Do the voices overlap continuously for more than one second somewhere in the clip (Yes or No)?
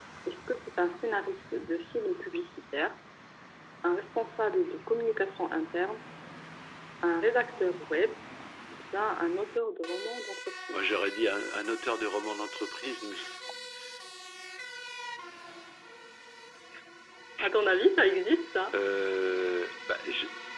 No